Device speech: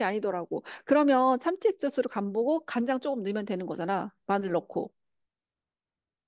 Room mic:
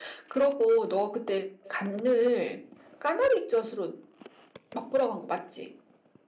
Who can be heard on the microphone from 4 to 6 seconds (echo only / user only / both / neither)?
user only